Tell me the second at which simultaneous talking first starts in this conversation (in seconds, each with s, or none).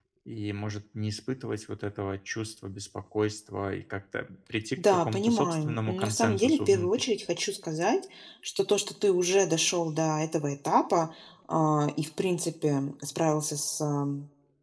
4.8 s